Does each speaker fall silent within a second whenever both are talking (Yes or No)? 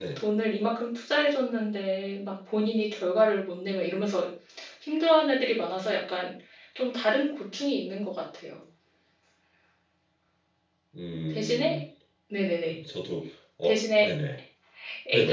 Yes